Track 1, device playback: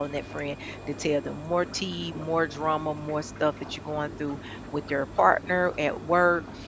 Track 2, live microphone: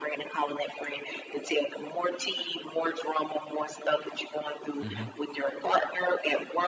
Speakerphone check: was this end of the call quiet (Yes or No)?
No